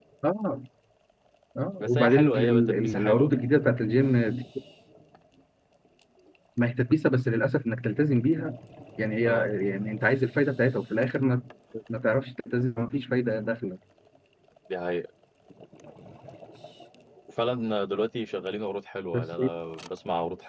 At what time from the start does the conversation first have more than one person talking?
1.8 s

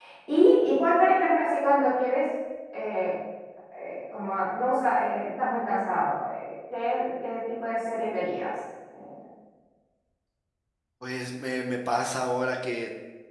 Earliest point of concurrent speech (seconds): none

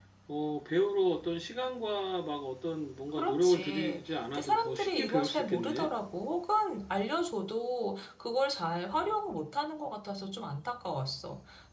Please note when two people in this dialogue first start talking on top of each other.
3.2 s

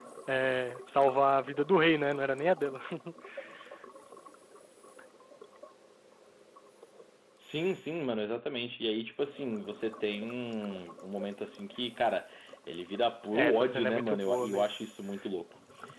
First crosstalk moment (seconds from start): 13.3 s

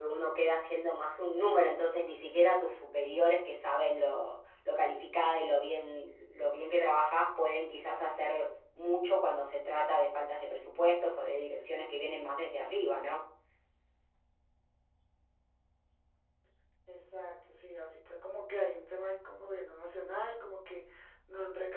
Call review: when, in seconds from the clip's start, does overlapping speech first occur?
none

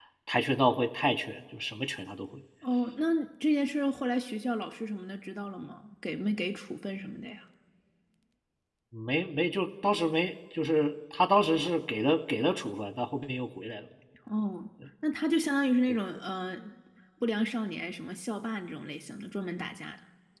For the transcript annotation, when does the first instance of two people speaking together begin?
none

